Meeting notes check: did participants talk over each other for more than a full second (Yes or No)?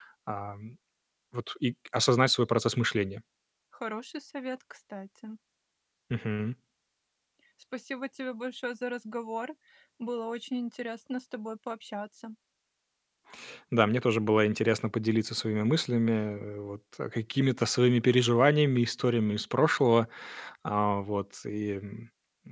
No